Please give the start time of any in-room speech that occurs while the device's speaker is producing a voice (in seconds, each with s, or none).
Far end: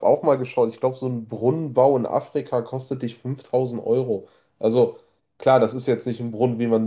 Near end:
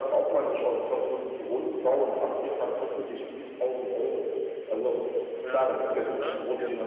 5.3 s